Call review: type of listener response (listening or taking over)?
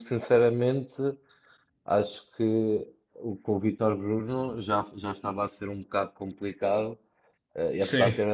listening